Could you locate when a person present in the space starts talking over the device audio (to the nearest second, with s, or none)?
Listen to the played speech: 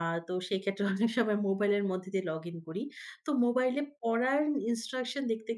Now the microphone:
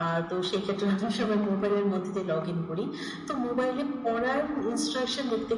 none